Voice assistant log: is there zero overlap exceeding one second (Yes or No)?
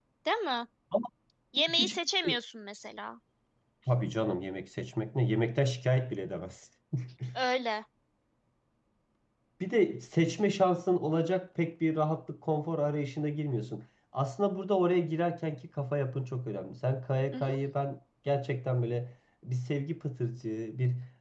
Yes